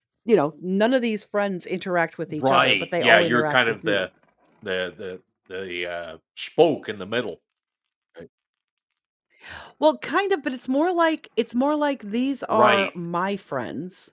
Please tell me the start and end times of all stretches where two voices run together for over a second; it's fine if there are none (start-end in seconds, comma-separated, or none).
2.4-4.0